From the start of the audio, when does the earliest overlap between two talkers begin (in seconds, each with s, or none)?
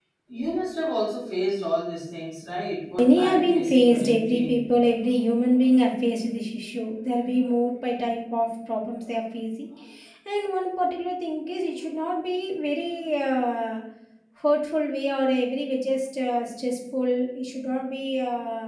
3.0 s